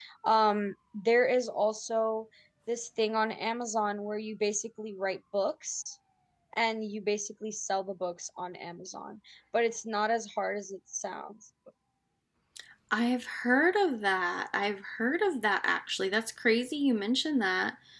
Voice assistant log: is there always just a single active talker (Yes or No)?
Yes